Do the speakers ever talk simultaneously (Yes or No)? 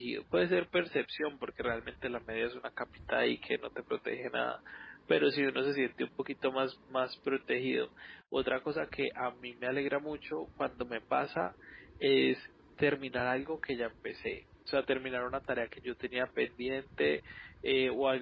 No